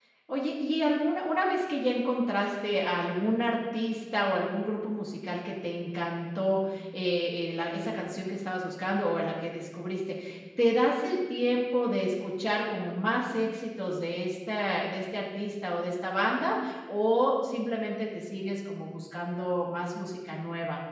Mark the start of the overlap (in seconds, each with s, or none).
none